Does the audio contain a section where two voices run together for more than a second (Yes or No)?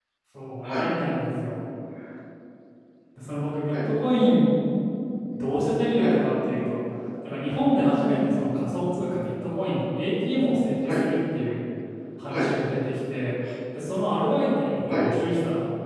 No